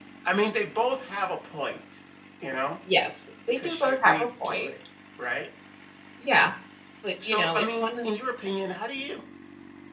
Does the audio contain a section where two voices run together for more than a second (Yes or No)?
Yes